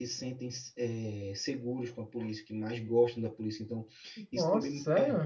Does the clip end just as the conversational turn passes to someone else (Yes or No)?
No